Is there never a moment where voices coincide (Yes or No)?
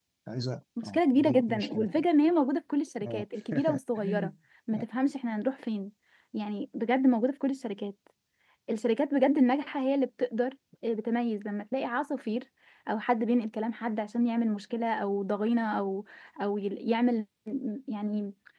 No